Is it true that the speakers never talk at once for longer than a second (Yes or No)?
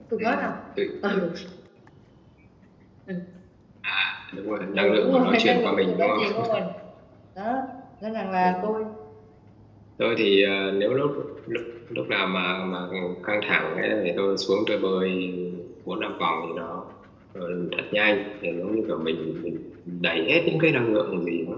No